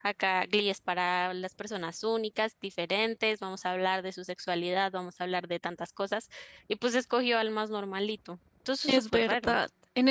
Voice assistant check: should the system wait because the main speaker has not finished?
No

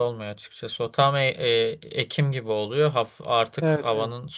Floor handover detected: No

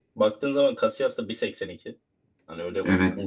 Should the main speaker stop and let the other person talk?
No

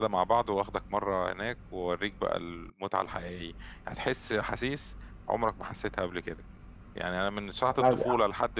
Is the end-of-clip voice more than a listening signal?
No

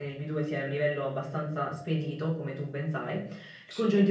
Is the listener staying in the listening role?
Yes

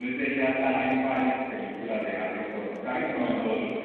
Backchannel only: Yes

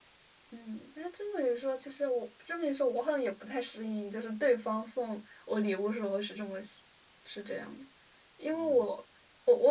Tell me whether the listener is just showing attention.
Yes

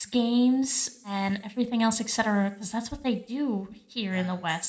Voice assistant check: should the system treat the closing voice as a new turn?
Yes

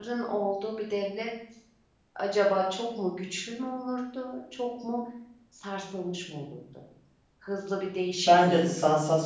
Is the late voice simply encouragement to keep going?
No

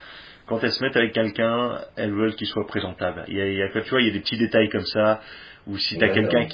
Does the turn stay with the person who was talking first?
Yes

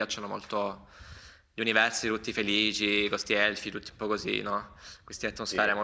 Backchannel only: Yes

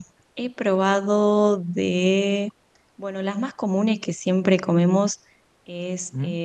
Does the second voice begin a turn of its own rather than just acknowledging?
No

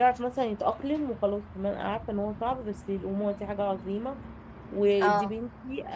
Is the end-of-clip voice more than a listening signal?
No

